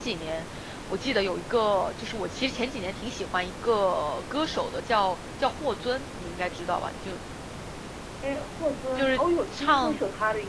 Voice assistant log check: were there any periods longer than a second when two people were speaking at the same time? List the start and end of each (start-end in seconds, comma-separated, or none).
none